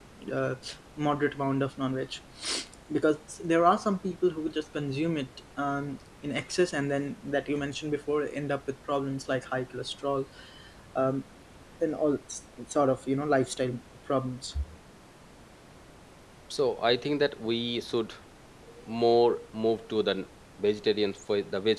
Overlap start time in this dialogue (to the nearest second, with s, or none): none